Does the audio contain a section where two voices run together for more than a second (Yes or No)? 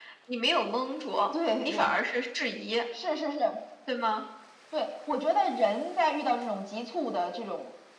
No